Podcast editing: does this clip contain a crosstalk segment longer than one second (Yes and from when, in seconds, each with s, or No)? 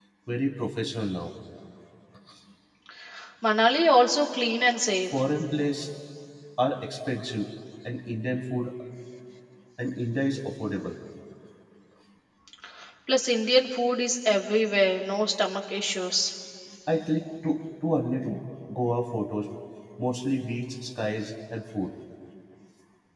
No